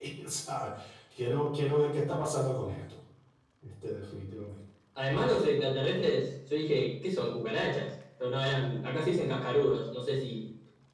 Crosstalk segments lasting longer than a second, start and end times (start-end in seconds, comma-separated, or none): none